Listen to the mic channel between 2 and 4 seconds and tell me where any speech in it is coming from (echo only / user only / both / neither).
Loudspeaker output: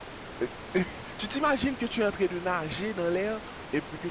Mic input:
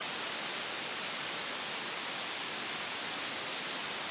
neither